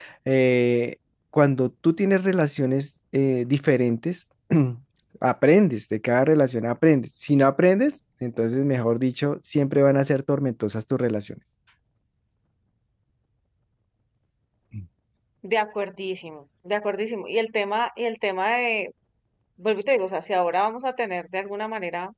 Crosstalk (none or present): none